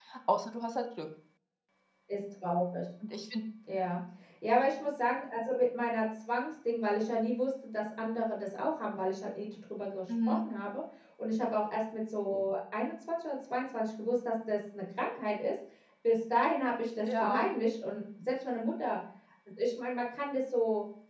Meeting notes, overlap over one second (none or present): none